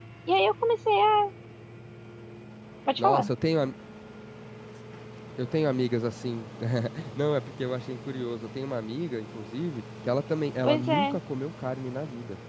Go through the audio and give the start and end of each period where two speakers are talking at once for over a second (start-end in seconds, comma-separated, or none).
none